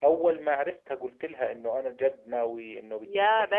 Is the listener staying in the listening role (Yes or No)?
No